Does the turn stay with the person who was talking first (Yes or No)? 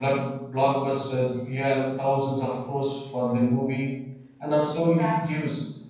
Yes